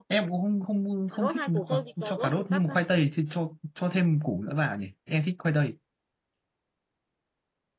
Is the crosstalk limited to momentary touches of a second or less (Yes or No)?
No